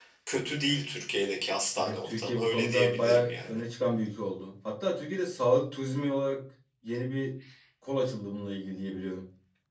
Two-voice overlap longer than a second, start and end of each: 1.8-3.6

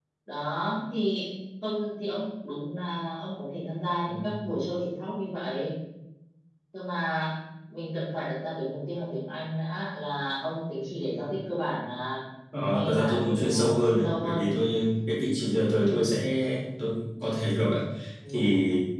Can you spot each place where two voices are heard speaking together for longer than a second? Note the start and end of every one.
12.7-14.5

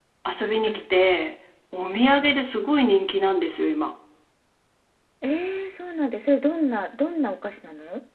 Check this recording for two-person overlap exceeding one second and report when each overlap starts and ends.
none

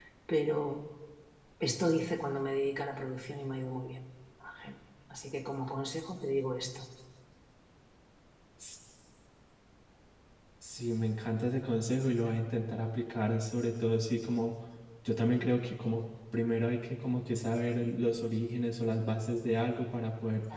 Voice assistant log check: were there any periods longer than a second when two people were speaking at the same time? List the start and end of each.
none

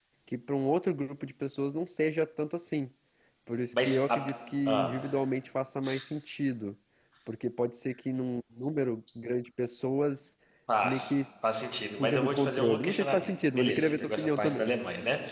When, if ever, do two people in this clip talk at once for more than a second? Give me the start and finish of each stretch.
12.0-14.7

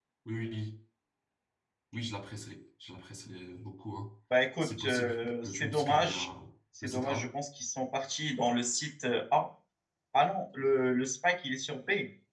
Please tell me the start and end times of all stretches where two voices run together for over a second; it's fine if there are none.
4.6-6.3

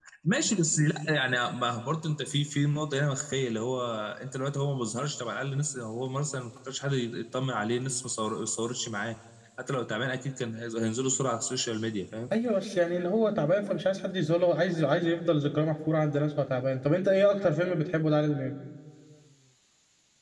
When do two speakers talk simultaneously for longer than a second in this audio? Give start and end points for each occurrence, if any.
none

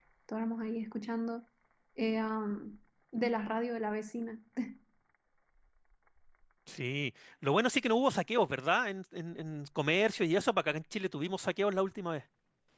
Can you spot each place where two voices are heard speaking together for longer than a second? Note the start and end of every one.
none

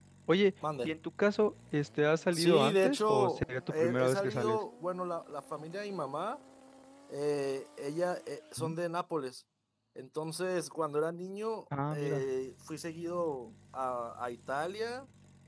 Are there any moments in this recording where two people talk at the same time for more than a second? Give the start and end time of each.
2.3-4.6

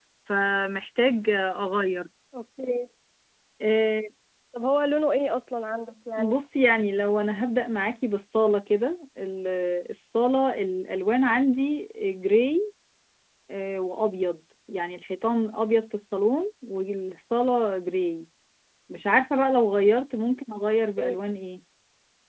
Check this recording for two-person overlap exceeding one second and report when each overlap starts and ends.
none

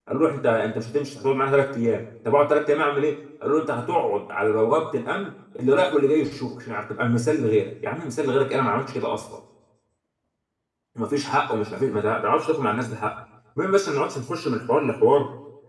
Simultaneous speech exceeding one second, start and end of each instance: none

